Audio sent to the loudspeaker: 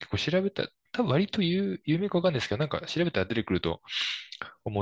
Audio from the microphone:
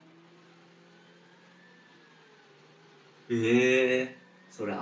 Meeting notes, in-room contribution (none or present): present